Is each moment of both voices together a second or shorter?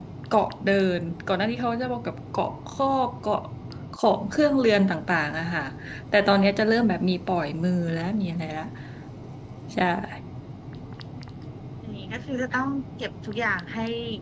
Yes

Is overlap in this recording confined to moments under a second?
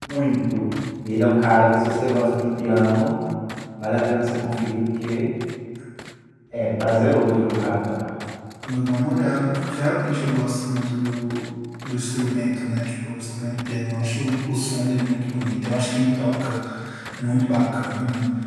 Yes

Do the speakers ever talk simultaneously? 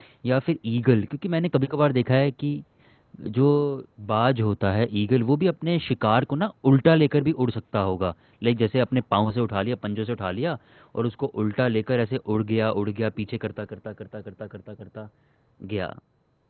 No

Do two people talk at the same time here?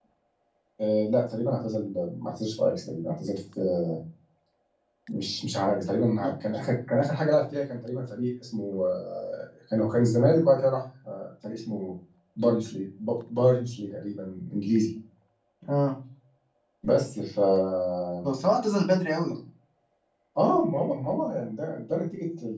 No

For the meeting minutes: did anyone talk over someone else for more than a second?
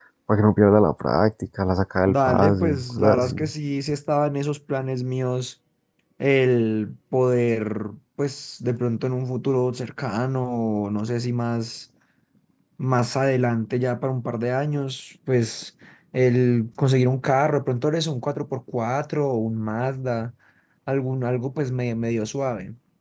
Yes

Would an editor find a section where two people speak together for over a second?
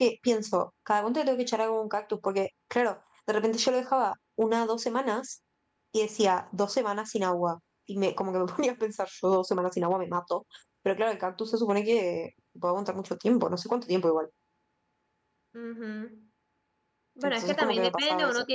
Yes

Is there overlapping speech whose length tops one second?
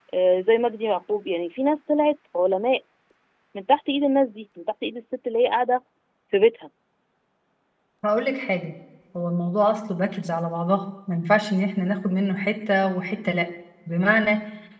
No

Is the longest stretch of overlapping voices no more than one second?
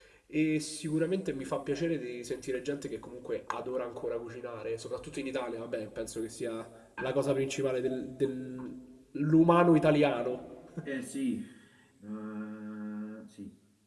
Yes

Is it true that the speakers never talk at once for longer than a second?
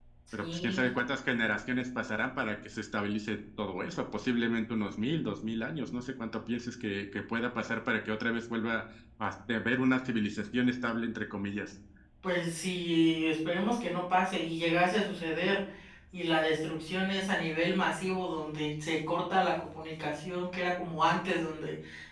Yes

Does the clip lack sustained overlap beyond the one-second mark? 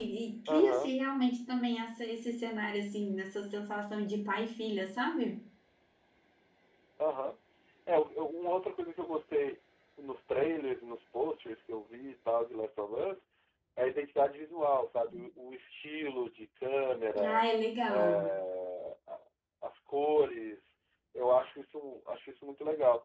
Yes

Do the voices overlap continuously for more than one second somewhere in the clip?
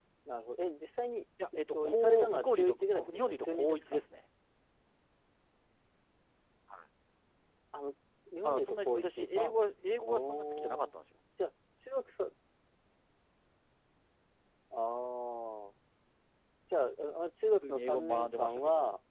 Yes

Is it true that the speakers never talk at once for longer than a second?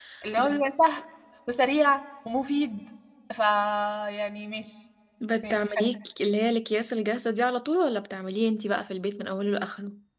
Yes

